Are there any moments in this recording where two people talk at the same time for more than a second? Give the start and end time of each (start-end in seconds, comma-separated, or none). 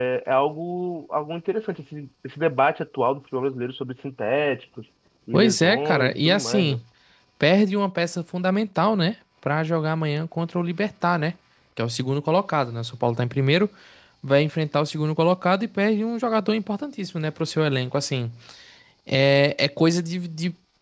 5.3-6.8